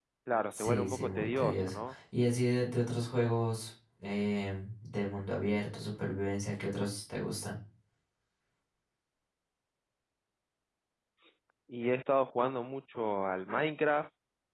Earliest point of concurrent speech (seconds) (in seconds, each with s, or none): 0.5 s